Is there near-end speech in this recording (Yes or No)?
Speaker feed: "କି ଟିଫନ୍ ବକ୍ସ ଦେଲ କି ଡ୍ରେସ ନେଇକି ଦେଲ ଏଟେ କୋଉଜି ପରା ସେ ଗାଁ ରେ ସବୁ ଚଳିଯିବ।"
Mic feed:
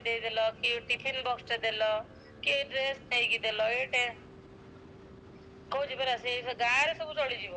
No